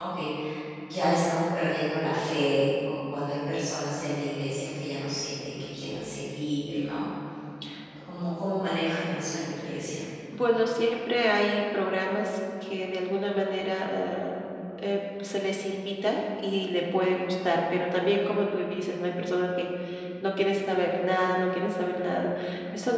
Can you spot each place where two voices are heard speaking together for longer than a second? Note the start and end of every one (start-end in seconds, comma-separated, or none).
none